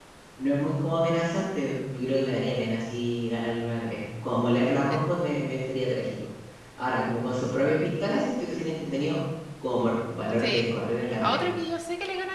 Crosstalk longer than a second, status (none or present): none